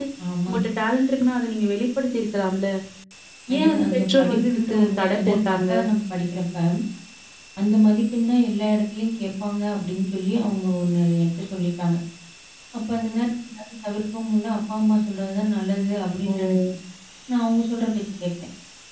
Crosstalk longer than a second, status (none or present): present